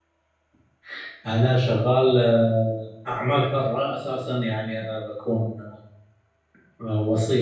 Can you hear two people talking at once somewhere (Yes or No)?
No